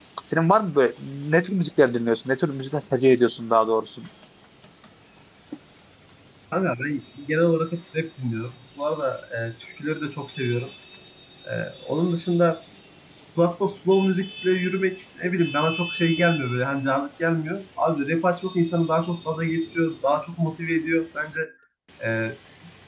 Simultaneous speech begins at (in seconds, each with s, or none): none